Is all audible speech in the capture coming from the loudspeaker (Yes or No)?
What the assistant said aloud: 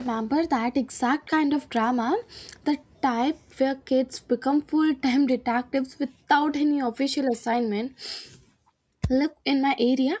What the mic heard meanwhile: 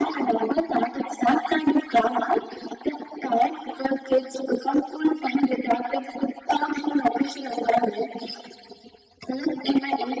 Yes